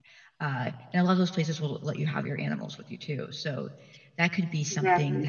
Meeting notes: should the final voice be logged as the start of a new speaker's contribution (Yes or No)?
No